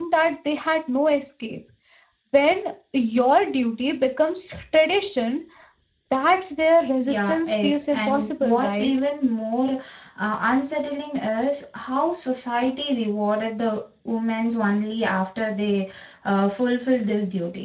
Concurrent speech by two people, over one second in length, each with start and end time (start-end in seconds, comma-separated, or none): 7.1-8.9